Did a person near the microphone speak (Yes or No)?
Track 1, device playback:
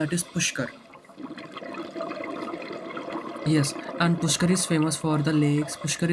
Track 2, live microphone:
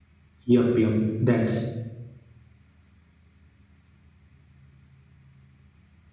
Yes